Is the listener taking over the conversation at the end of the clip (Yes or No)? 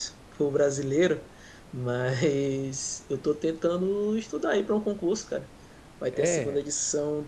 No